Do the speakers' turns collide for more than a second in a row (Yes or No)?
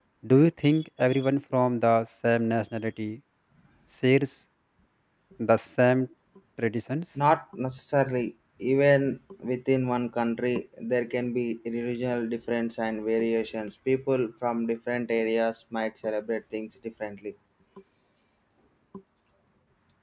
No